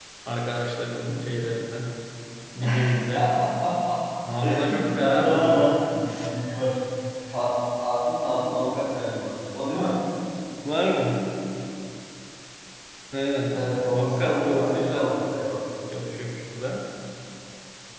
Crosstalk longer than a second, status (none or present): present